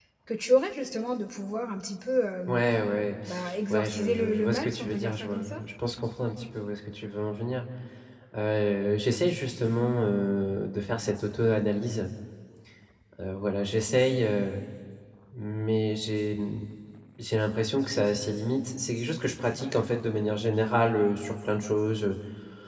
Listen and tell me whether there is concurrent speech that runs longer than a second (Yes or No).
Yes